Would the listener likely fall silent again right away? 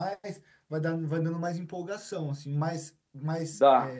No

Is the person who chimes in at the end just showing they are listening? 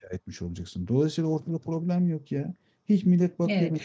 No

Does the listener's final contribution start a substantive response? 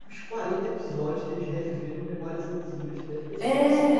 Yes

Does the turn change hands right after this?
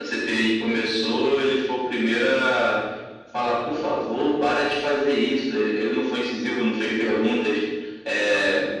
No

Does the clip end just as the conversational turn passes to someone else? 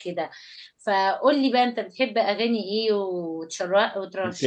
Yes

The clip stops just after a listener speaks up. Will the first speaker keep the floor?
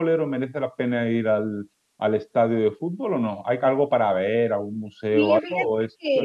No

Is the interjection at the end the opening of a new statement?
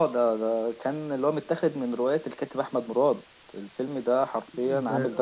Yes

